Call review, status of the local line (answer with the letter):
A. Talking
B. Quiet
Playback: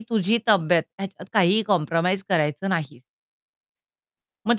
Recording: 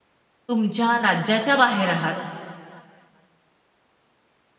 A